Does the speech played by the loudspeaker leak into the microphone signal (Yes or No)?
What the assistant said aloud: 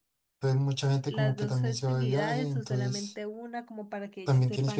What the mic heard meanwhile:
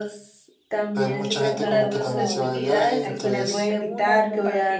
Yes